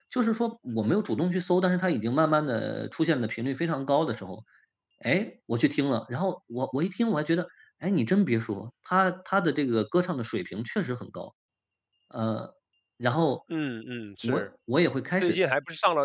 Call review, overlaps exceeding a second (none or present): none